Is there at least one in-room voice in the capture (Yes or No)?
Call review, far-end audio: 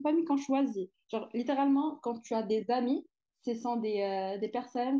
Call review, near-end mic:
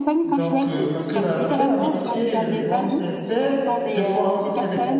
Yes